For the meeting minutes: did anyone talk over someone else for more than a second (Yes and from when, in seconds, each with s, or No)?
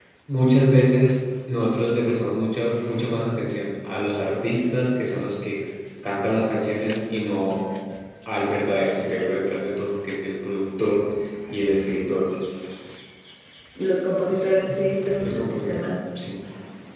Yes, from 14.3 s